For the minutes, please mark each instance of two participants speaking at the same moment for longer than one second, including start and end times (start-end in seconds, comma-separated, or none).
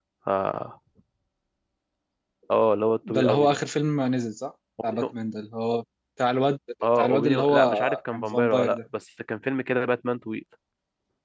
7.0-8.8